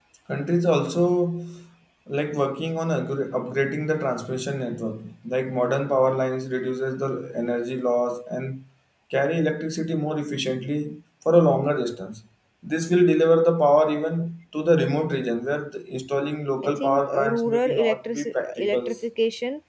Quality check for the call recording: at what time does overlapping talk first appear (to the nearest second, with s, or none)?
17 s